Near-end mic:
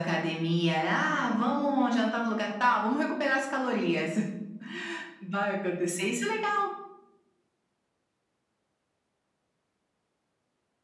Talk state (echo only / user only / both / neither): echo only